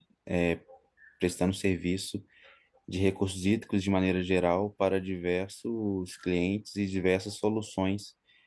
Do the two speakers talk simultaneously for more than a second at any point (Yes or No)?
No